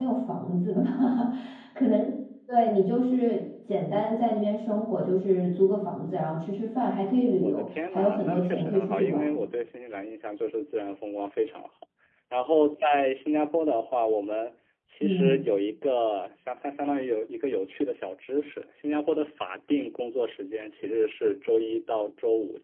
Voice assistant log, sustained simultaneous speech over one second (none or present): present